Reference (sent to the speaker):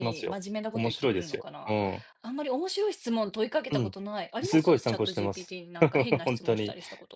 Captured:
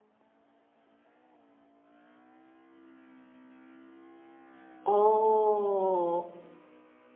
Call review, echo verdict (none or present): none